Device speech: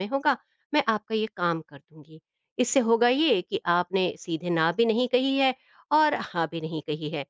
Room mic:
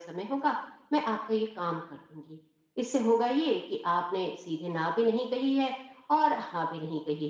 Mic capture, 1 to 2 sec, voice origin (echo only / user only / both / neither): echo only